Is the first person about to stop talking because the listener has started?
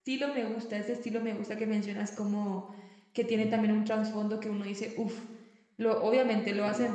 No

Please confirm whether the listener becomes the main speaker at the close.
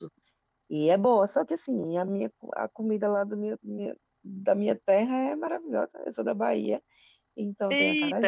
Yes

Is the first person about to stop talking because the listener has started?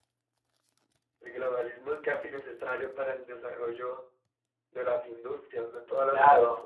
Yes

